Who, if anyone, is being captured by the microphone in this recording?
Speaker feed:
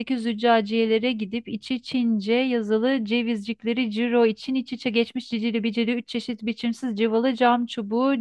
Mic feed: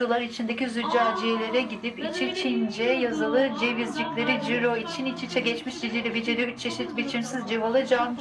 both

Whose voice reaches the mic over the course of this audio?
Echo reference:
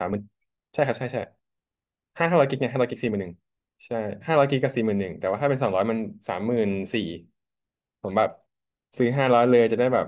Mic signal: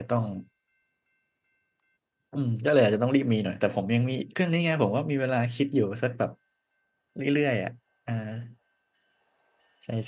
user only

